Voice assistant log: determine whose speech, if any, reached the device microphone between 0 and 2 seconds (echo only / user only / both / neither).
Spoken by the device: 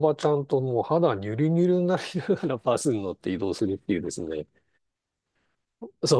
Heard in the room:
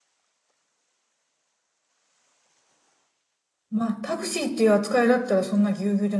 neither